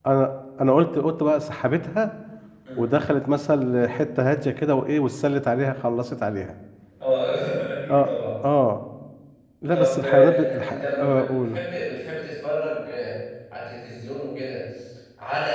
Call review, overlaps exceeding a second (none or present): present